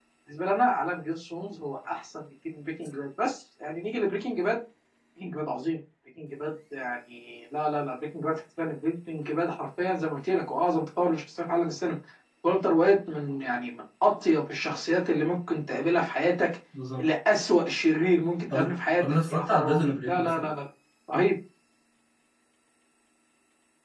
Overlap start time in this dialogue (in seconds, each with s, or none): 18.5 s